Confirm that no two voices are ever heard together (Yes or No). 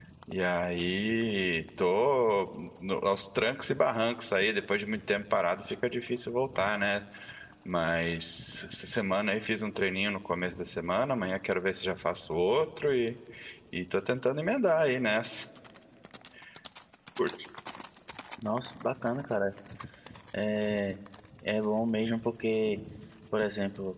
Yes